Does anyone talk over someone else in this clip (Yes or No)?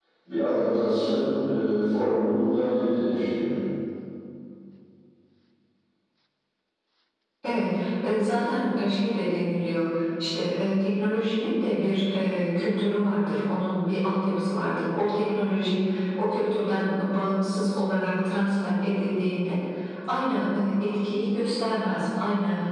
No